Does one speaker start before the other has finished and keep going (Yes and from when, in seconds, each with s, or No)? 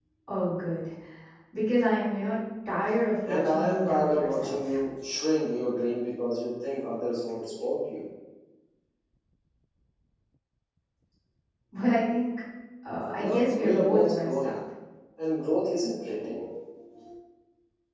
Yes, from 3.2 s